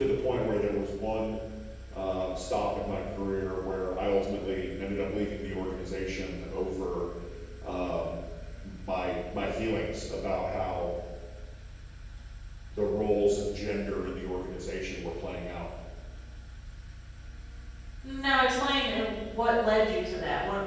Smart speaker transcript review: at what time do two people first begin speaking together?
none

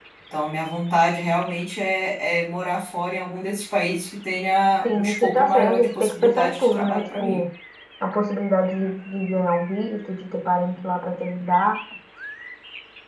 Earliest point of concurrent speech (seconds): 4.8 s

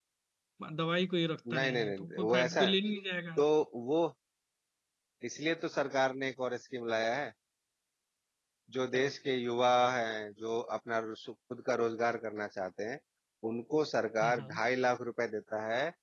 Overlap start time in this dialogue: 1.5 s

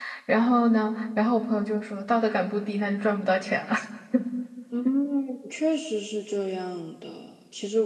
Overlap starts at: none

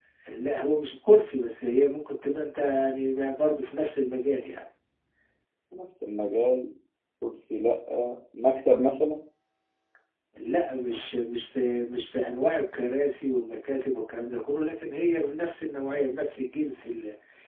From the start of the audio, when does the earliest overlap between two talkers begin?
none

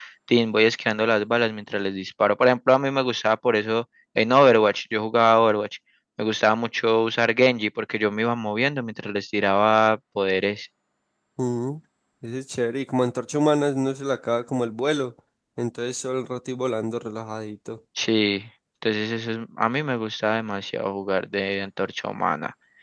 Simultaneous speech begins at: none

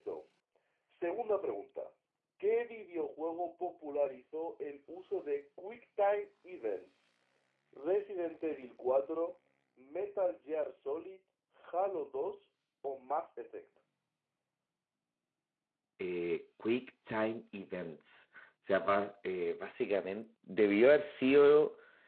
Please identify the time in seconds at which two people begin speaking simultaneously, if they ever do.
none

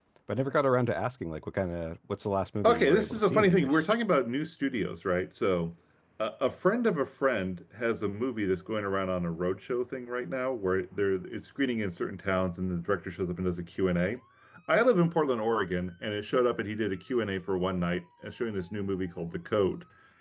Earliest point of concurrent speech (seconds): 2.6 s

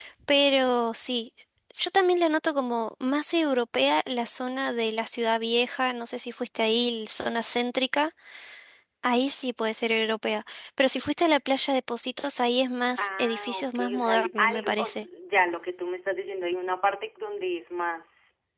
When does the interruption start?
13.0 s

